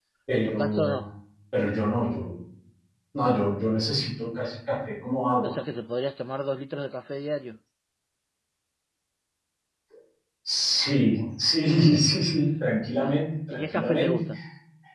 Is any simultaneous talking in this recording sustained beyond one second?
Yes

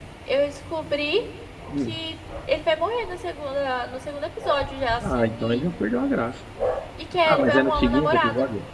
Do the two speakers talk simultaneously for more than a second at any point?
Yes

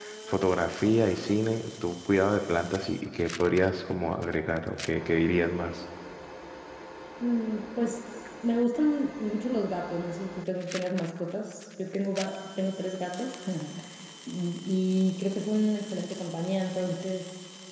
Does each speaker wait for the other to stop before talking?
Yes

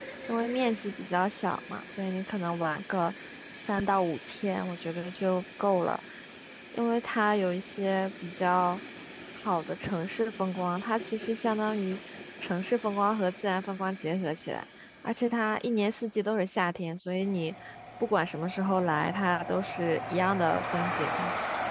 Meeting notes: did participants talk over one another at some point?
No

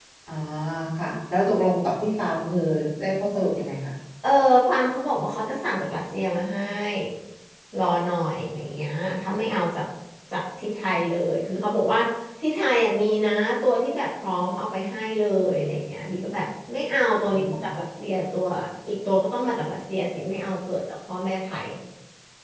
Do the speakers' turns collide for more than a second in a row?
No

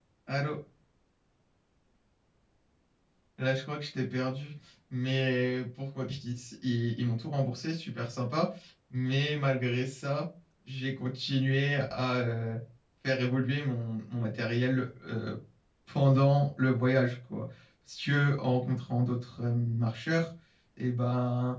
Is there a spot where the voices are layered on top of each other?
No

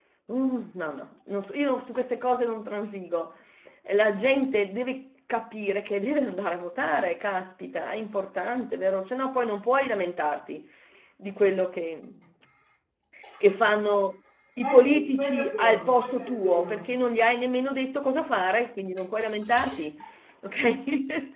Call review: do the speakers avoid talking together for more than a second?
No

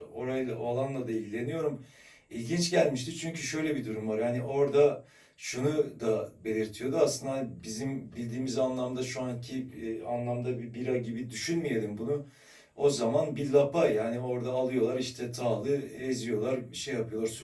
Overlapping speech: No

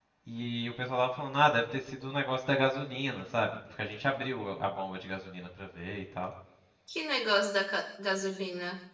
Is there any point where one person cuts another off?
No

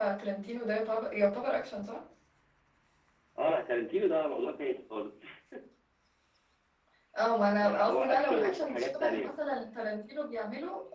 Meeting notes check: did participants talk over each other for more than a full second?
Yes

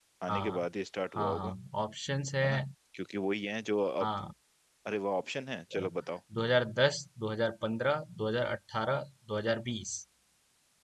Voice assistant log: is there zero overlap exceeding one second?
Yes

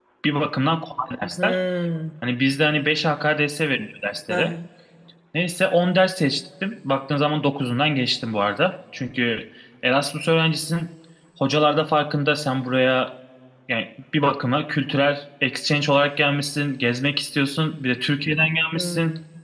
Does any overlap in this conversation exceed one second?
No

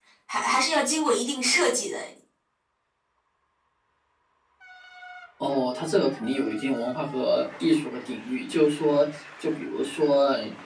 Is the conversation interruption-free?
Yes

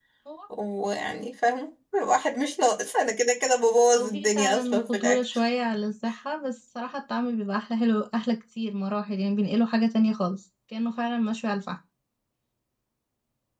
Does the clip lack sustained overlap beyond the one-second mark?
No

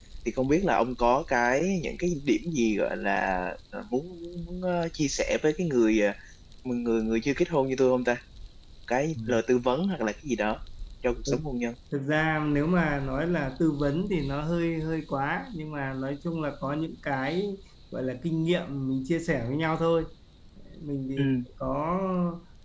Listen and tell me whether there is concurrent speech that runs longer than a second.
No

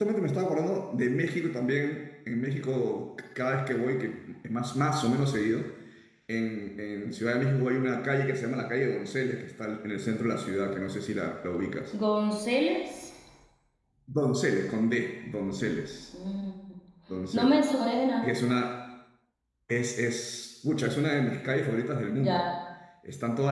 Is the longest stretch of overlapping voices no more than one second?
Yes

